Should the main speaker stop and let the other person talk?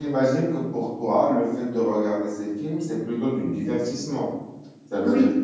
No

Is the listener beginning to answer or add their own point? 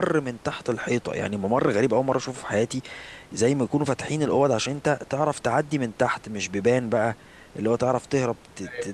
No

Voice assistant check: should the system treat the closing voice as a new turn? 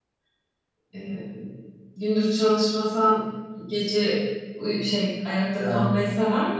No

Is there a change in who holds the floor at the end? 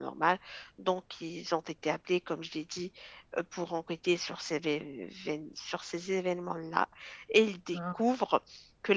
No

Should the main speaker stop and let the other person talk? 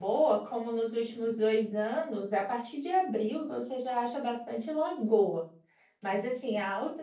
No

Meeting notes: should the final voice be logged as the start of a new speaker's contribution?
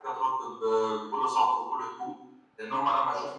No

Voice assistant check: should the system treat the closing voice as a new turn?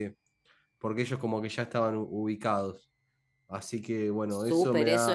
Yes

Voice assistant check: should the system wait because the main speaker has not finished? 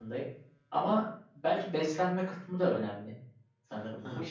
No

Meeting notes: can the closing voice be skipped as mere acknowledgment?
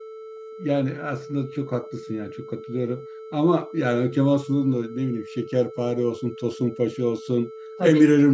Yes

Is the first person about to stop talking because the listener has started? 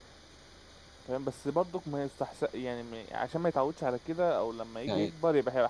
No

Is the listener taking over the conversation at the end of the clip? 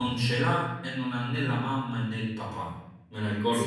Yes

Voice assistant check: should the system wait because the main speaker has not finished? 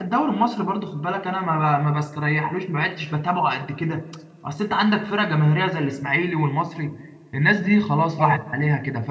Yes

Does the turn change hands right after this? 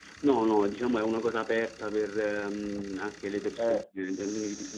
No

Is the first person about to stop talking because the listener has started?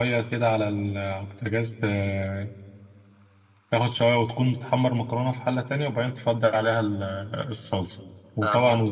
No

